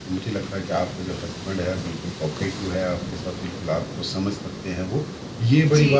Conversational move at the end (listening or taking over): listening